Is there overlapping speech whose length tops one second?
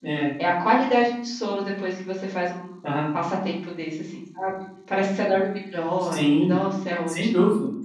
No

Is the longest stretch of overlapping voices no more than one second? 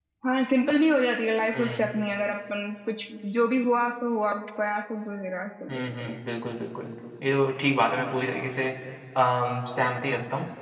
Yes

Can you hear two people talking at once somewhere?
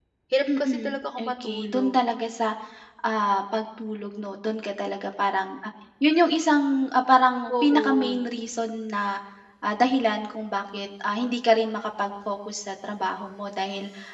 Yes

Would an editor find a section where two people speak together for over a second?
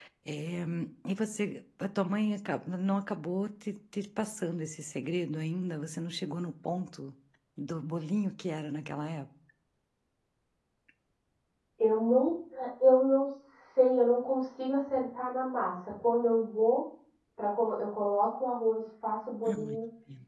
No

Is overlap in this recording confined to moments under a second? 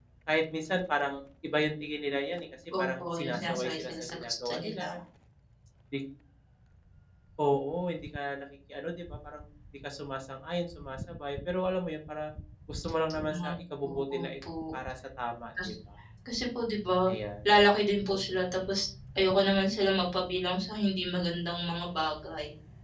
No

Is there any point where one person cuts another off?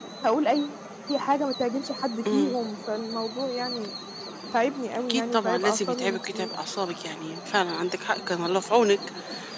Yes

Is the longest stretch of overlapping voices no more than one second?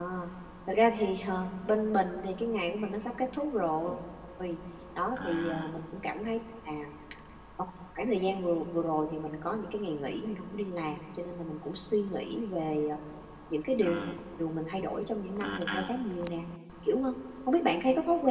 Yes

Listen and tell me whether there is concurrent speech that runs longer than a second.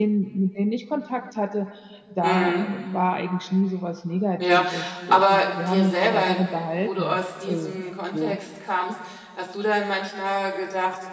Yes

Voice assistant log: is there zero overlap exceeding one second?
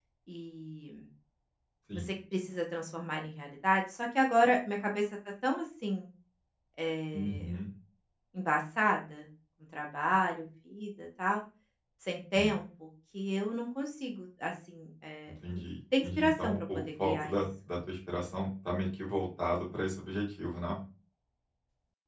No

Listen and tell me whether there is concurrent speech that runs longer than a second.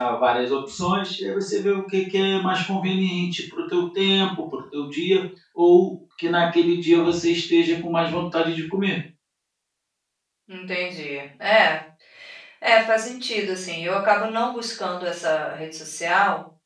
No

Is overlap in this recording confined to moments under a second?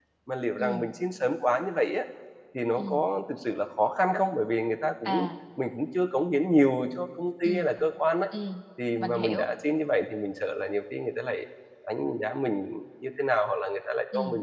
Yes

